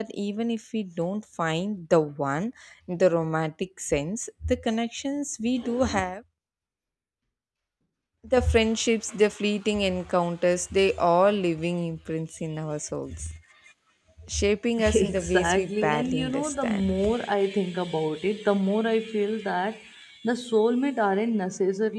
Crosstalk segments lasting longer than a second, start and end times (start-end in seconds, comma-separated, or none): 14.9-16.9